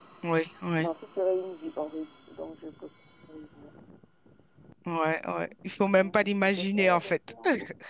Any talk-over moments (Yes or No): Yes